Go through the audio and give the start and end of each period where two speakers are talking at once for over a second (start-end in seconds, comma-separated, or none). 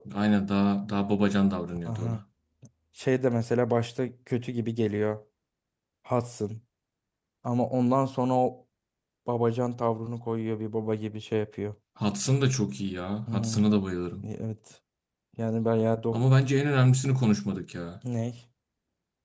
none